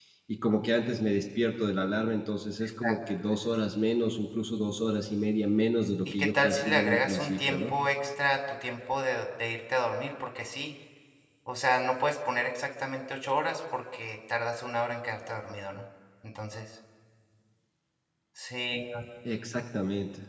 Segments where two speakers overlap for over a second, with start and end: 6.1-7.7

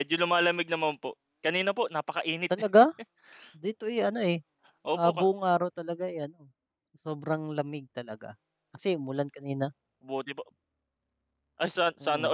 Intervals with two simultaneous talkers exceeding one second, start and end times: none

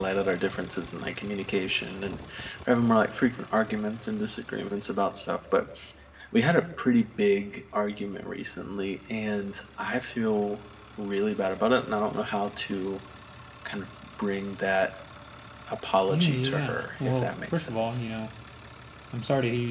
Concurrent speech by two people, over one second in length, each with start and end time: 16.1-18.0

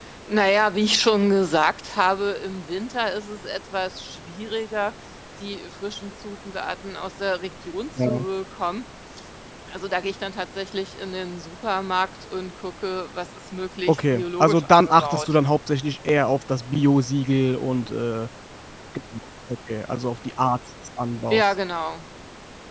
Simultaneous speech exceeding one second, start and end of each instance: 13.9-15.4

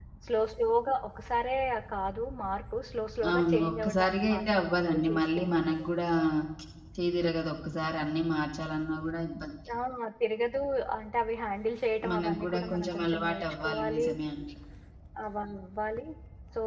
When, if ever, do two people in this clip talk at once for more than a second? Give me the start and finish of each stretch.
3.3-5.8, 12.1-14.1

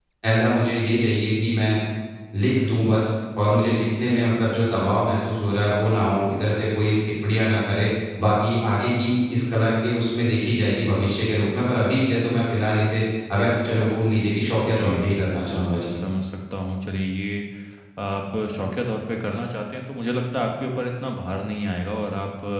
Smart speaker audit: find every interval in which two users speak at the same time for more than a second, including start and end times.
14.6-15.9

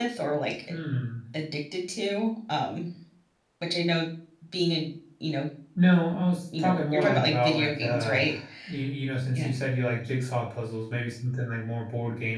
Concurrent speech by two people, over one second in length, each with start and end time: 6.6-8.2

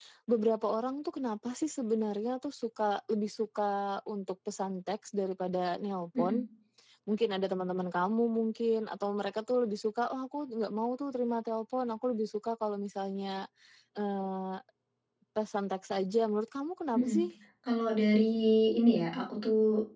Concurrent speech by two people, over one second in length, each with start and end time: none

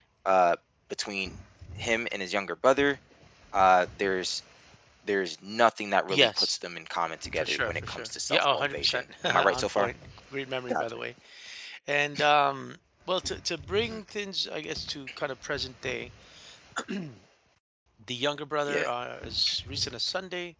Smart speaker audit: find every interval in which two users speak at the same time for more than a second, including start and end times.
7.4-9.9

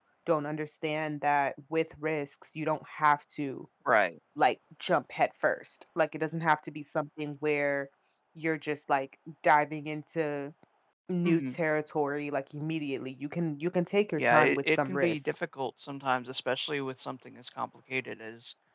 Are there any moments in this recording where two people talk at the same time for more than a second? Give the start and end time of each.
14.2-15.5

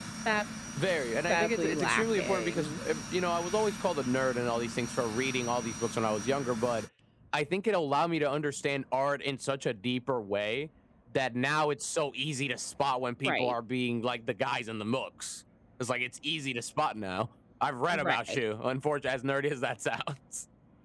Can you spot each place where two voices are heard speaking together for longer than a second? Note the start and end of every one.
1.3-2.8

